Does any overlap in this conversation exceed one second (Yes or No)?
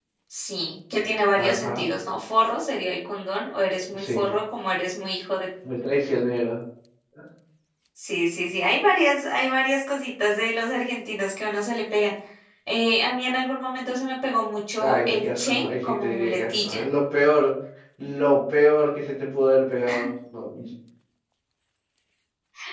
Yes